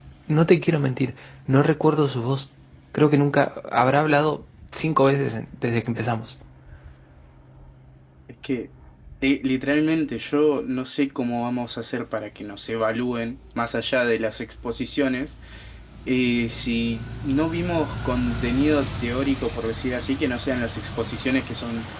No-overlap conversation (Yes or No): Yes